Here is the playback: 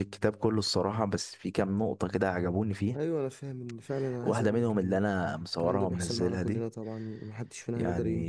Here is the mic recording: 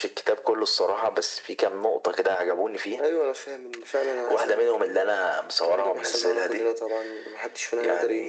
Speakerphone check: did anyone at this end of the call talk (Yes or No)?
No